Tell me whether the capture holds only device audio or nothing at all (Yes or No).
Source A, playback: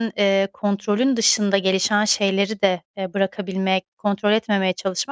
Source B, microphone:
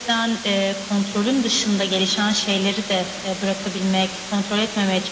Yes